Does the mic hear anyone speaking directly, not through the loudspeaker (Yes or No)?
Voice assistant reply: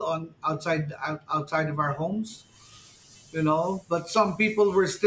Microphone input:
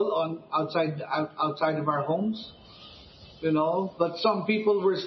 No